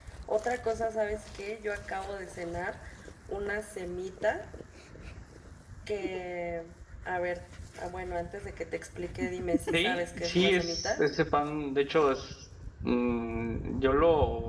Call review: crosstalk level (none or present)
present